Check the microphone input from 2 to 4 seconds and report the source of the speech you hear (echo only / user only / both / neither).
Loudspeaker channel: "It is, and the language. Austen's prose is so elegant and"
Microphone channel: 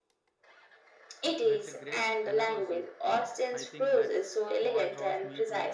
both